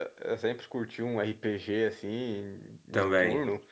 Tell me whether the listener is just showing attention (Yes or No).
Yes